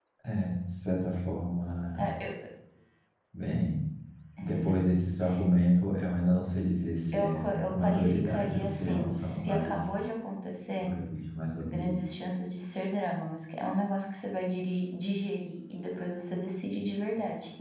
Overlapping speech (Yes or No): Yes